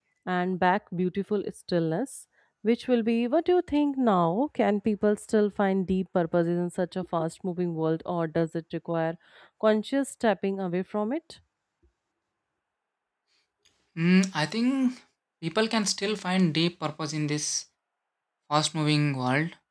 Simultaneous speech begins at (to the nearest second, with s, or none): none